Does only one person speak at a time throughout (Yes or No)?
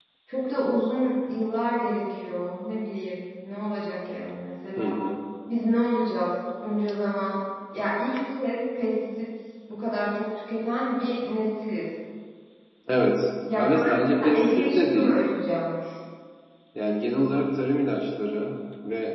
No